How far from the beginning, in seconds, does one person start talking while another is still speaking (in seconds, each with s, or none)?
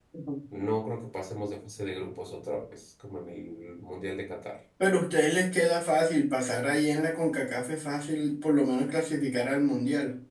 none